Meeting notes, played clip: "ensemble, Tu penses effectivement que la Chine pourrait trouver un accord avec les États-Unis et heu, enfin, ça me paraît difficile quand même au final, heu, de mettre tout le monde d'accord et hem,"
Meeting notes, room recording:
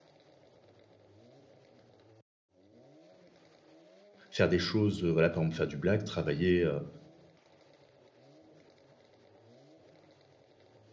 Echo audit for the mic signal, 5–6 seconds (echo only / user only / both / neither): user only